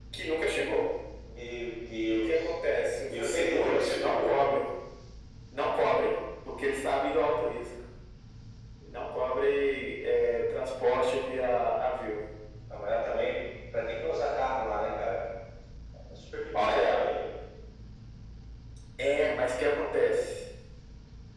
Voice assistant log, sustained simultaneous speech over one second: present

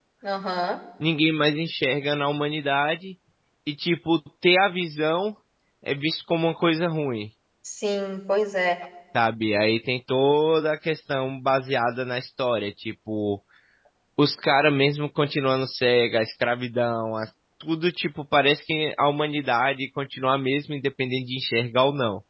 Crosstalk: none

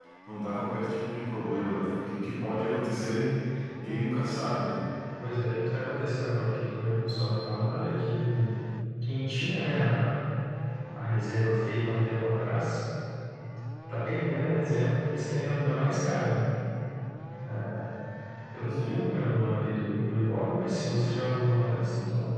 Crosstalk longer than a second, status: none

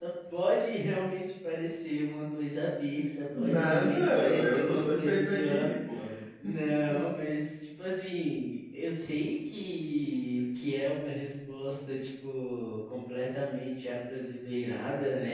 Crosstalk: present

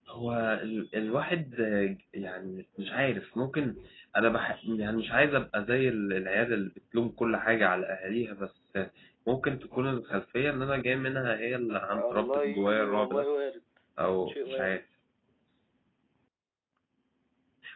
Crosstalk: present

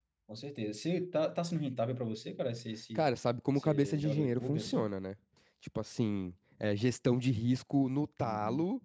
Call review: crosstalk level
present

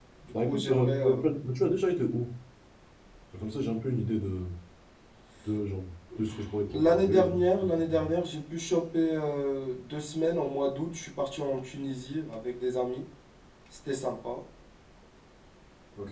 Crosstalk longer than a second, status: present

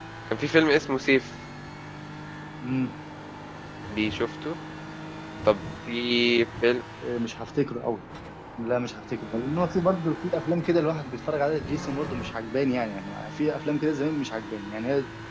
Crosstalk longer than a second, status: none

